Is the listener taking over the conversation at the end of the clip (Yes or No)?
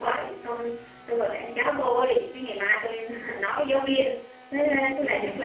No